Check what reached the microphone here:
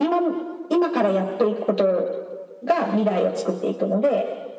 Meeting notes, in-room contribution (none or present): none